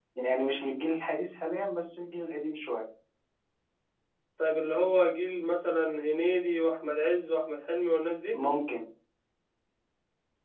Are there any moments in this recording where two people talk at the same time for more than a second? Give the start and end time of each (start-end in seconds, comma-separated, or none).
none